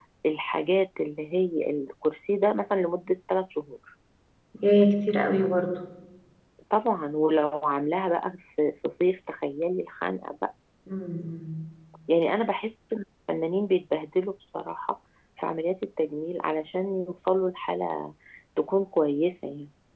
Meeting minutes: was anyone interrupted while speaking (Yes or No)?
No